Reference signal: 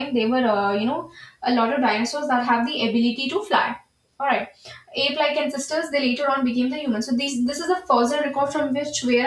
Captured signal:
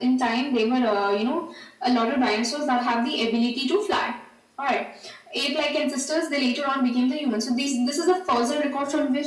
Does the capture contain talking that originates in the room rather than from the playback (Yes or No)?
No